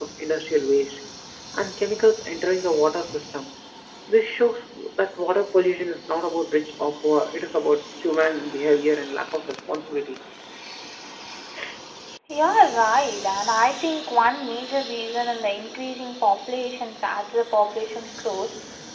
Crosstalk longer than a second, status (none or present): none